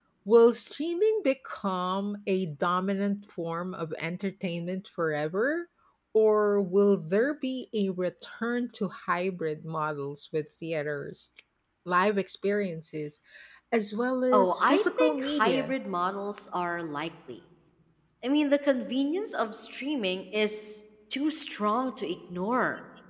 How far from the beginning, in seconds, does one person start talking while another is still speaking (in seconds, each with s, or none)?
14.3 s